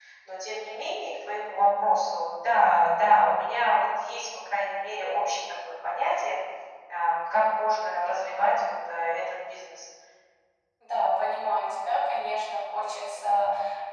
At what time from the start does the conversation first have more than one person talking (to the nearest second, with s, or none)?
none